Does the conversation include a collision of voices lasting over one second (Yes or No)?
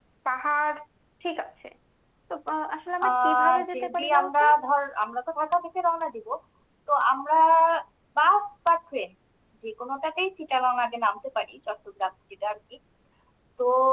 Yes